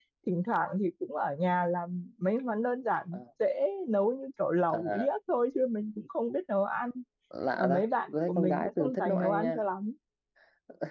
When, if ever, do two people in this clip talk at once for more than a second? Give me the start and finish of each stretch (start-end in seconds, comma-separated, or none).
7.6-9.6